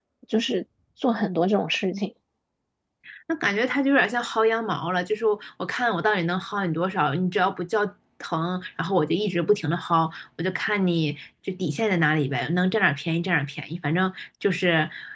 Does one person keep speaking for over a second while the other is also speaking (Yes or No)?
No